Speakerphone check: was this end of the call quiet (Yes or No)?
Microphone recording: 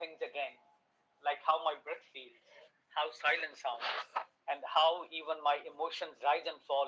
Yes